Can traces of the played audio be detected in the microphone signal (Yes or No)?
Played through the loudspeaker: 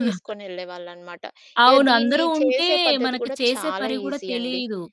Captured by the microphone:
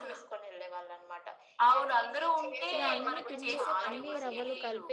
Yes